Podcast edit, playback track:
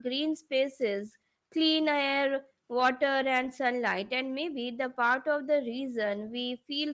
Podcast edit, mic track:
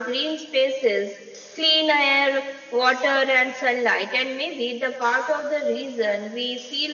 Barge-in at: none

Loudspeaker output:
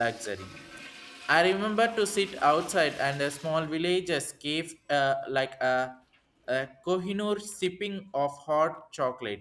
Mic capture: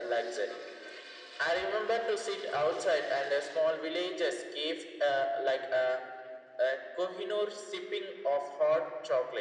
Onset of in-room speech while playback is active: none

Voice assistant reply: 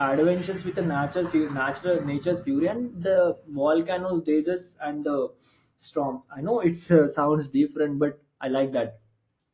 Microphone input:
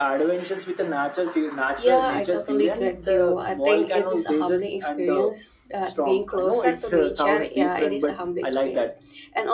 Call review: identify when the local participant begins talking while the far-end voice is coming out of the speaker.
1.8 s

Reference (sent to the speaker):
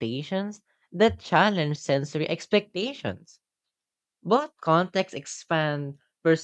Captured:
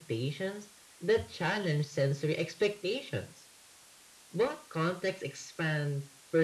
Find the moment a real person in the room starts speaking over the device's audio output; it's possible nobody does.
none

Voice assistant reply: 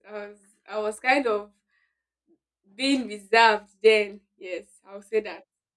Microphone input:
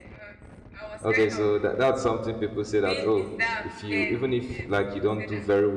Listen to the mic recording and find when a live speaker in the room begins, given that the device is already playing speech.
1.0 s

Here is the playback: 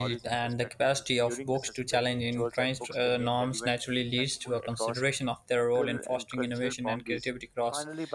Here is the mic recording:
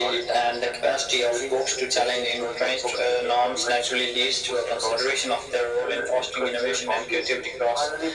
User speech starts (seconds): none

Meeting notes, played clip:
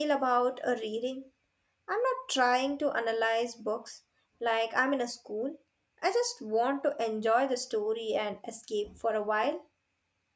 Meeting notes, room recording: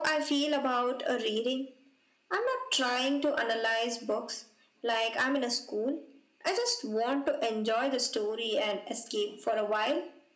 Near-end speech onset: none

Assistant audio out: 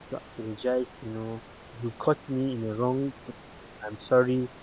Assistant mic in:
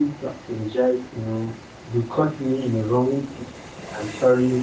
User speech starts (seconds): none

